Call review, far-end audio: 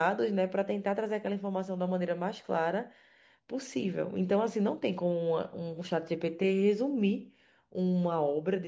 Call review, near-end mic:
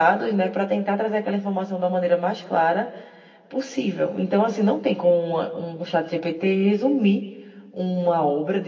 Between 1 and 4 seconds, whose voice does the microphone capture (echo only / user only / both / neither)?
echo only